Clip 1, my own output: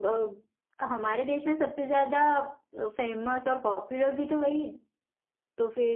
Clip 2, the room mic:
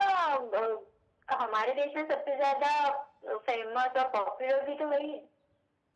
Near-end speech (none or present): none